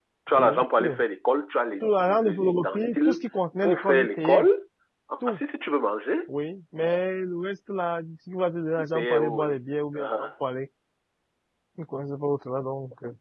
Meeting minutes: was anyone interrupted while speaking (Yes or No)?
Yes